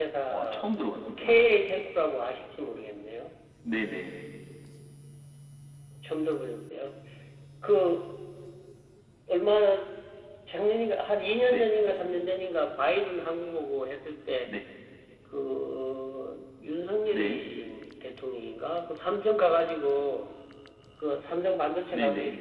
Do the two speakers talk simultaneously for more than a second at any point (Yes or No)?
No